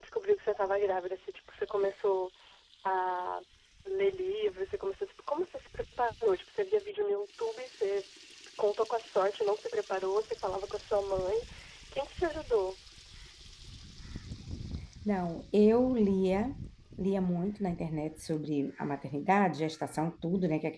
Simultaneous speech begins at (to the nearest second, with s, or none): none